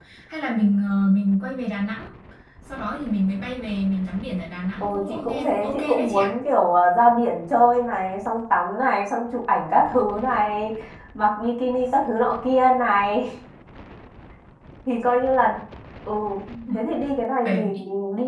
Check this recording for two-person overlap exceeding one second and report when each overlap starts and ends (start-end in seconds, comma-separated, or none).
4.8-6.3